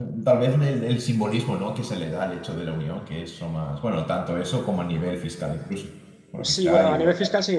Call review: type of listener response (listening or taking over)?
taking over